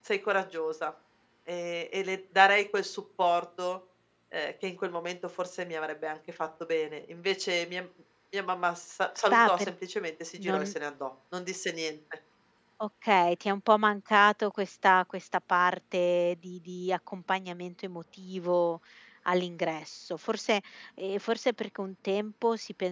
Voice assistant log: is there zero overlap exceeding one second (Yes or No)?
Yes